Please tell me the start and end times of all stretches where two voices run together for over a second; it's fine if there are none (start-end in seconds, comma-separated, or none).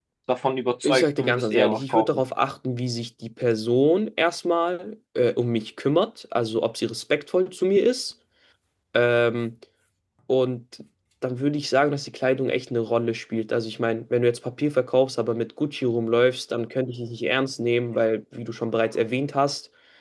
0.8-2.2